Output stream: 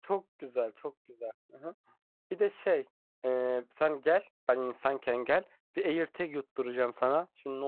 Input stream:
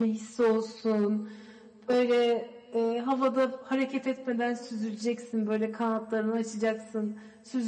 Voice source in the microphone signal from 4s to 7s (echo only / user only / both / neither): user only